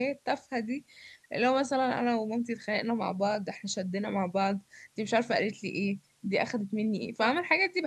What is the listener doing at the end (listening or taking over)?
listening